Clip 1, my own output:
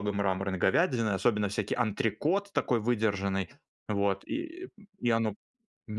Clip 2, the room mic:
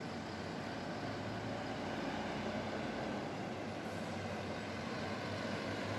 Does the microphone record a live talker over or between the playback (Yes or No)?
No